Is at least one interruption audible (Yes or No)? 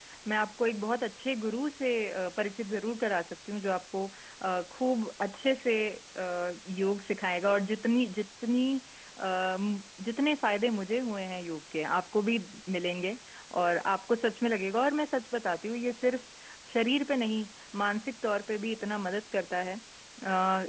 No